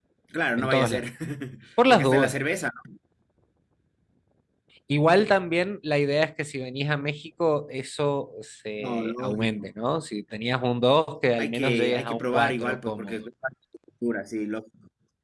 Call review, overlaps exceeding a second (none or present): present